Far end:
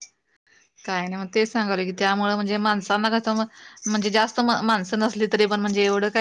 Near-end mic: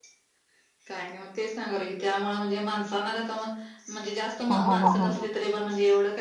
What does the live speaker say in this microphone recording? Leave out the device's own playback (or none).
हा हा हा हा हा